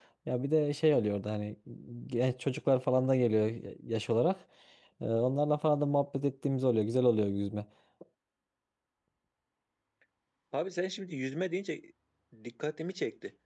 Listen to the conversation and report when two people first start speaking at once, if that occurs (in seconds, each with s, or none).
none